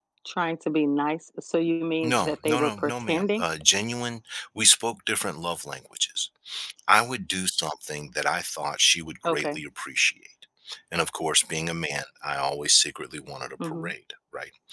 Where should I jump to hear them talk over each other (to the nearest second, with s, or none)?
2 s